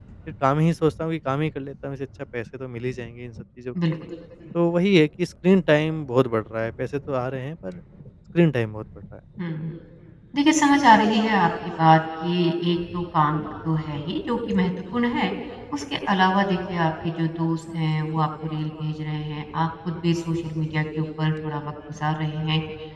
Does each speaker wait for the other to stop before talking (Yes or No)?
Yes